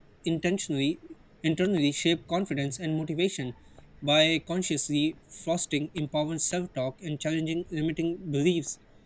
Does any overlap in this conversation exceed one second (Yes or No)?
No